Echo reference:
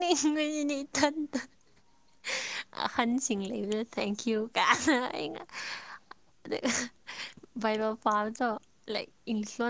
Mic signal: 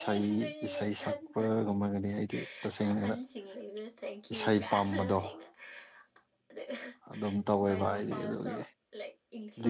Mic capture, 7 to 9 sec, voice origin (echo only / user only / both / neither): both